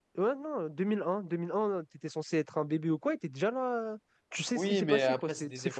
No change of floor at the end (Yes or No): No